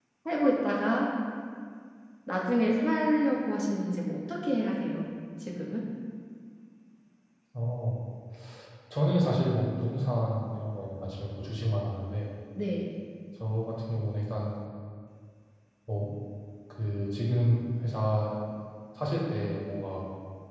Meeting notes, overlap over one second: none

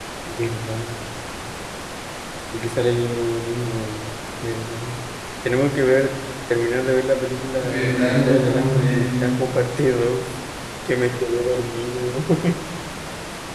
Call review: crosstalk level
present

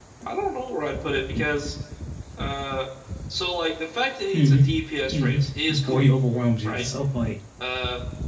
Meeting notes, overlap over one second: none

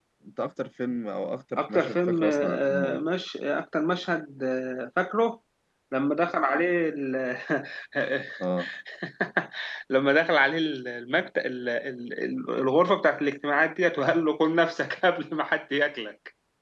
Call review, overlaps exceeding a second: present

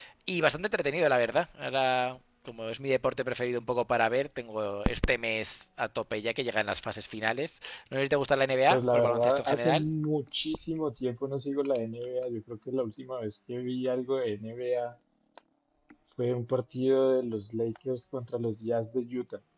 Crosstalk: present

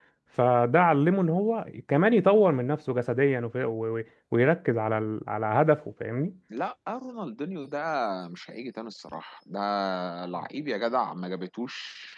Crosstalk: none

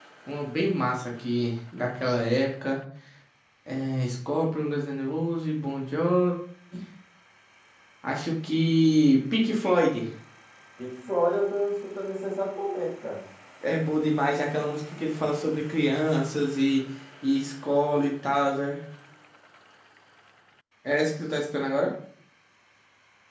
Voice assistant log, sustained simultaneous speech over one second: none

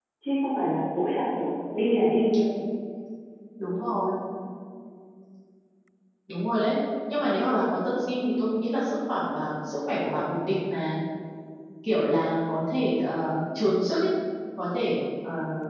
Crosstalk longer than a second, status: none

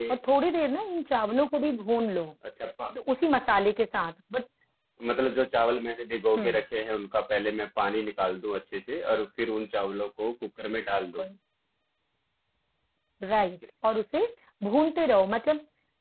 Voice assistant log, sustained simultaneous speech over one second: none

